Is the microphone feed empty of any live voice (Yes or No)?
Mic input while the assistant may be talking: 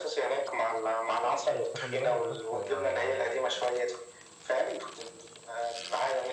No